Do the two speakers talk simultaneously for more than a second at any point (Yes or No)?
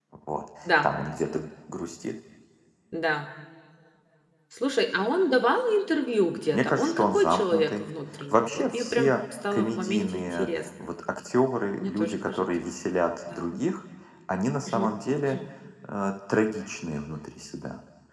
Yes